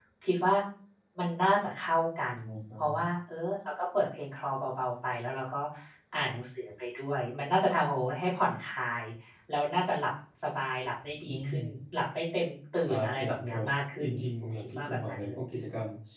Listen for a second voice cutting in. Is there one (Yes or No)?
Yes